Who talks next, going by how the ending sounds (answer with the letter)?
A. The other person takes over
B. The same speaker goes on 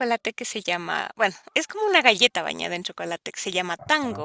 B